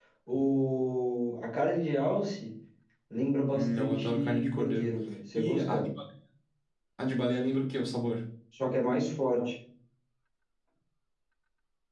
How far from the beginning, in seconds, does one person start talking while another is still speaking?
3.5 s

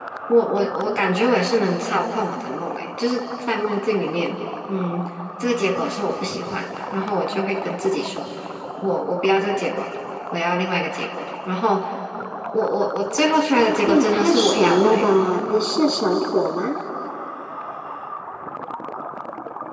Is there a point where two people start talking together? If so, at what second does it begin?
13.9 s

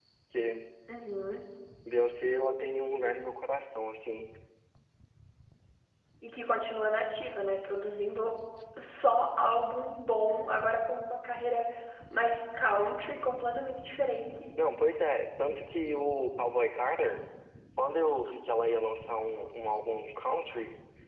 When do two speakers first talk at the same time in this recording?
none

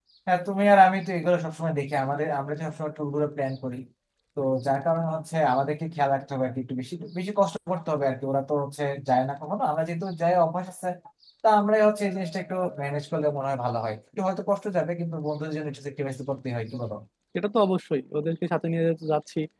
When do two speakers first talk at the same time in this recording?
none

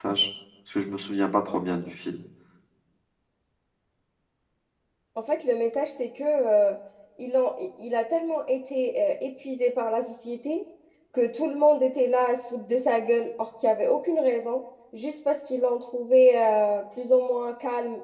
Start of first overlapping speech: none

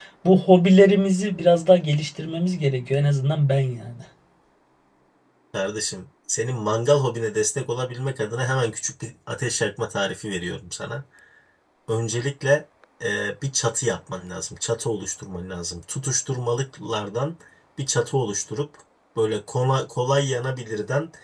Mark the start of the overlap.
none

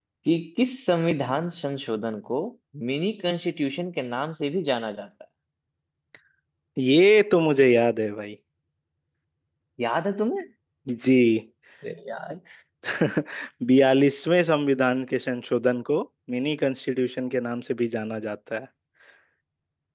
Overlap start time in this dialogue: none

